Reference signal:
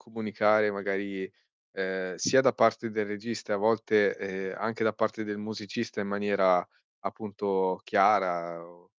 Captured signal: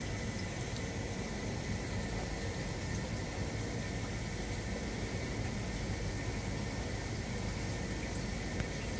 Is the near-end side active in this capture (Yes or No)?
No